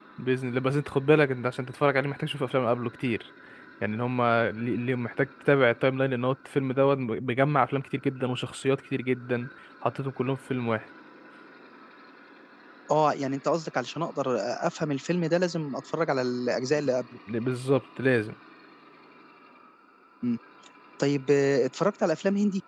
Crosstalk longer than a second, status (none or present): none